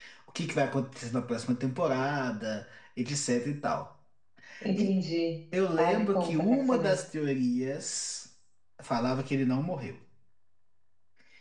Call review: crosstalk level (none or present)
present